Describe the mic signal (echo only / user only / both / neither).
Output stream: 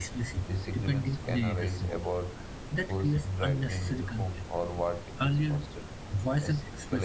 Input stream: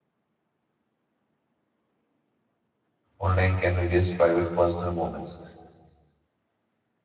user only